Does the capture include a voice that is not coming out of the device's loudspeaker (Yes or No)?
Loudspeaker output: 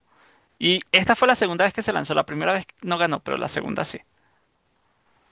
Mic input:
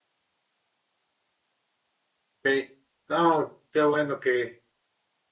Yes